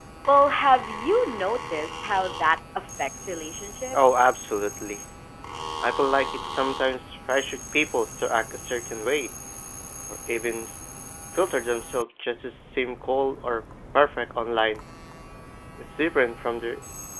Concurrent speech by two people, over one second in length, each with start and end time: none

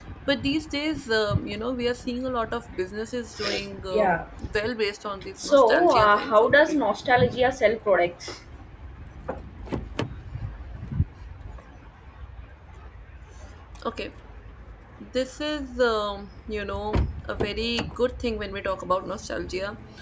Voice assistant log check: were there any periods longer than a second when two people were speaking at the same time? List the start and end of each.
5.3-6.8

